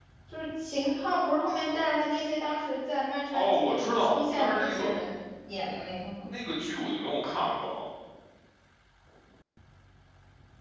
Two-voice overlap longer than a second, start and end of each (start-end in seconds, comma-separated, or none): 3.3-4.9